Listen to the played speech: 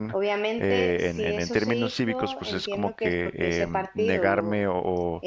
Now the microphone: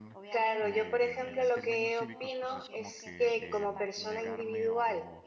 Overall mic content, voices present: both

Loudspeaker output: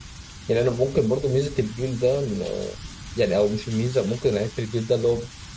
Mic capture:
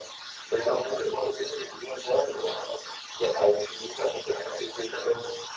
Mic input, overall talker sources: echo only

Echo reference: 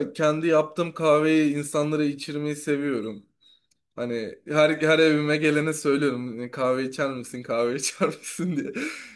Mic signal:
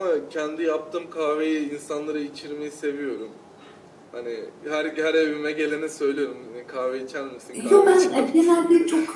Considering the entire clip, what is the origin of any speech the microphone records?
both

